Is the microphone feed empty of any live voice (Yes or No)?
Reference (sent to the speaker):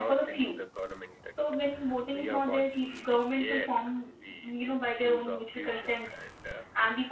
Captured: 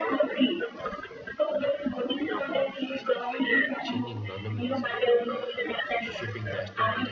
No